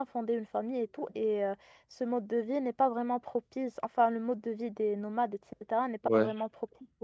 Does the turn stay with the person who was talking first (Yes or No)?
Yes